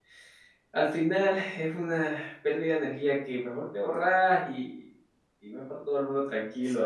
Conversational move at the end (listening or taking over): taking over